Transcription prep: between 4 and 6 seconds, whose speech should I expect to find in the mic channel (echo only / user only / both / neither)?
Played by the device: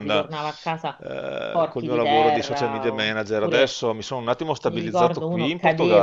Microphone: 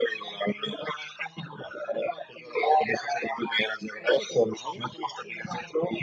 both